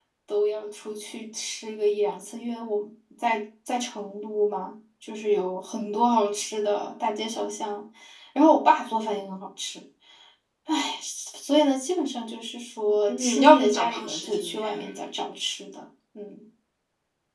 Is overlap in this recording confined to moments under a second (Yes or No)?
No